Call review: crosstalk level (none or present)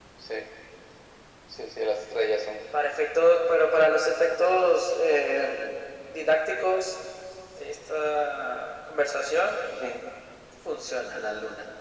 none